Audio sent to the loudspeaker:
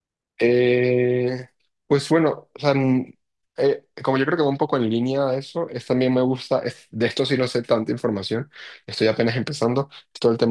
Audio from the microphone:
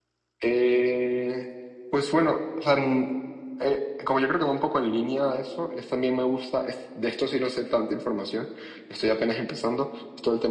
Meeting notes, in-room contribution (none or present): none